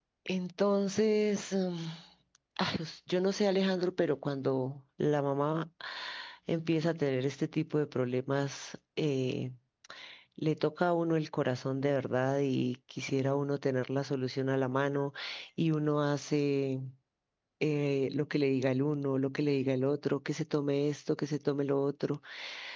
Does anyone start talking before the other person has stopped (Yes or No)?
No